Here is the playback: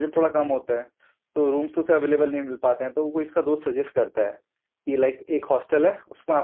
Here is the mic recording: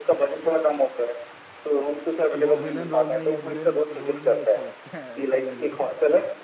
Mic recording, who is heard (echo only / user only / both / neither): both